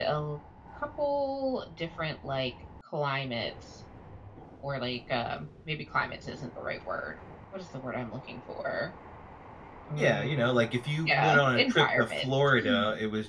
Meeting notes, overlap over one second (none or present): present